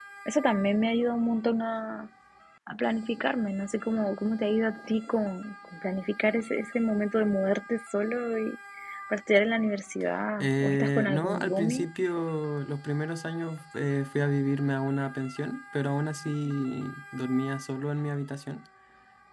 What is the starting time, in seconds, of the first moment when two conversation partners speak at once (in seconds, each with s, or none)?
10.4 s